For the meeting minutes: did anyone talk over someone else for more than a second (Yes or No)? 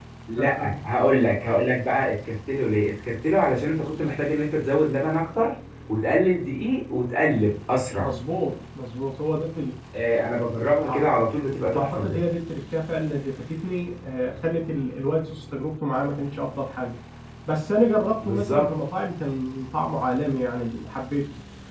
No